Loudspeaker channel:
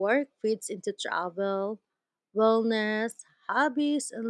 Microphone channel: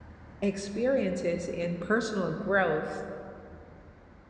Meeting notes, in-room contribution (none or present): present